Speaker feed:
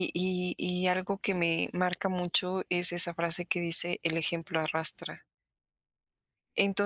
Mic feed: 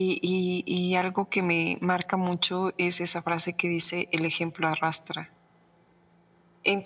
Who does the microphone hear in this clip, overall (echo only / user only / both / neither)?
echo only